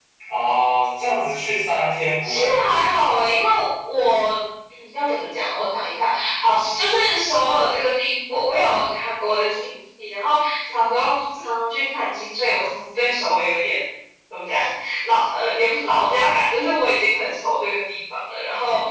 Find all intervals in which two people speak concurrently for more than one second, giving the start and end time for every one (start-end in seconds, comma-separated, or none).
2.2-3.4